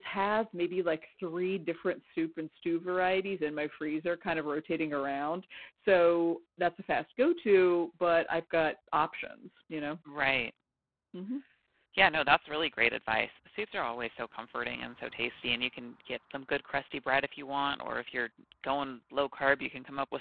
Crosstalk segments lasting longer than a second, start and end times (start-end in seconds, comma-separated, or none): none